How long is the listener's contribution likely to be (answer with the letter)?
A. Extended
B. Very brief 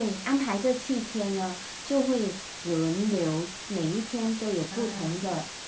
B